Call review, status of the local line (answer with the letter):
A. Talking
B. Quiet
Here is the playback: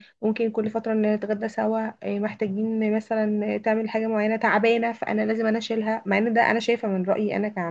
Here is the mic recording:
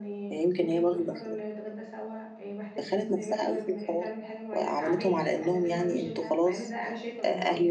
A